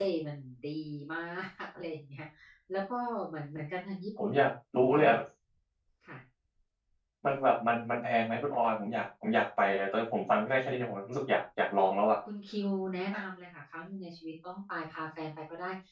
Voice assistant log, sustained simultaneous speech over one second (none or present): none